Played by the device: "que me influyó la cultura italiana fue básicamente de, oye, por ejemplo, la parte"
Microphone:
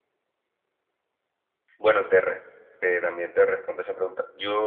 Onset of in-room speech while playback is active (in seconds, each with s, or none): 1.8 s